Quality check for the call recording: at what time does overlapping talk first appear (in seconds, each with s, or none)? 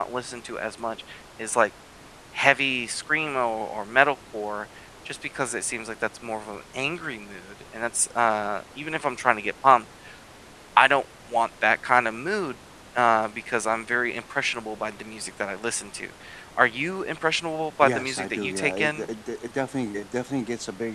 17.8 s